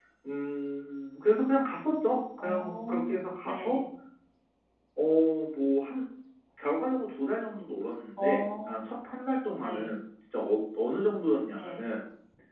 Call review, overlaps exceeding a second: present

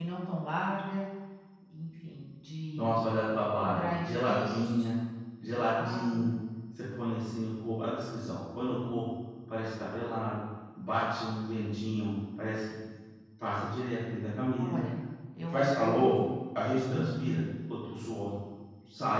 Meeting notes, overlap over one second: present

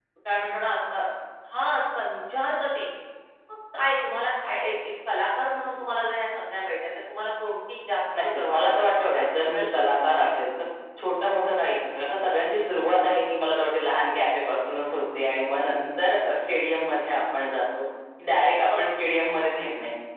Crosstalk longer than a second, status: present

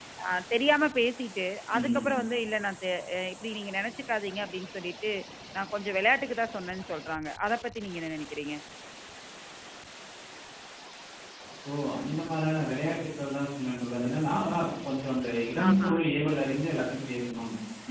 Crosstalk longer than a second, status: none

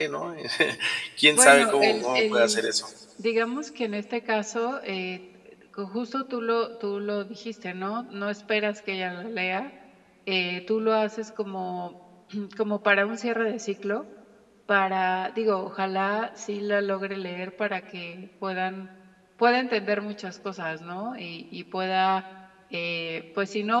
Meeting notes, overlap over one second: present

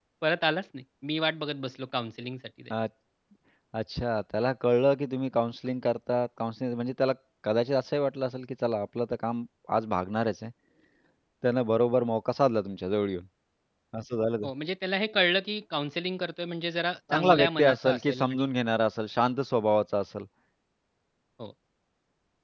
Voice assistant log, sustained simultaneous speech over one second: present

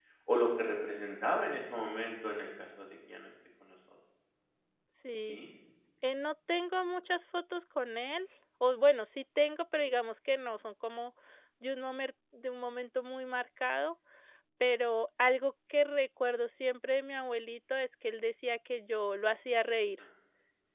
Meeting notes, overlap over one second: none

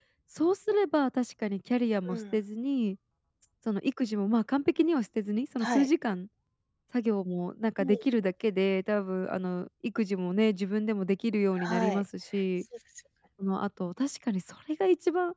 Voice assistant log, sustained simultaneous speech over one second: none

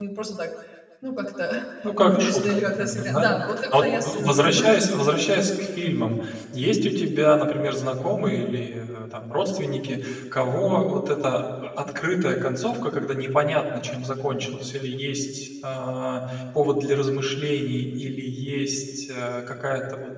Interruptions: present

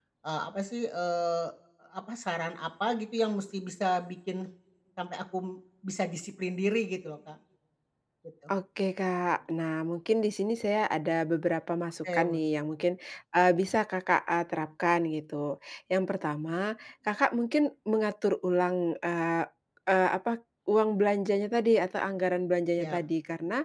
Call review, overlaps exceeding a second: none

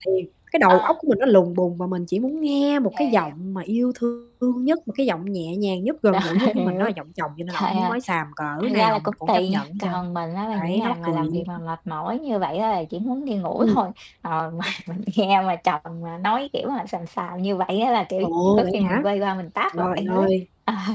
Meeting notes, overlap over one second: present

